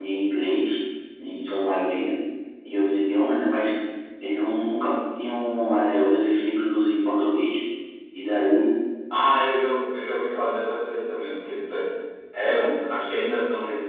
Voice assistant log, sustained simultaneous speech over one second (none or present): none